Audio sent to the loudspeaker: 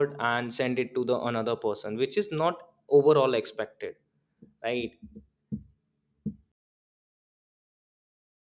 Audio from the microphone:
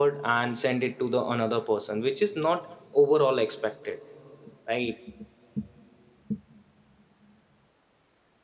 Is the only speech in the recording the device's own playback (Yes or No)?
Yes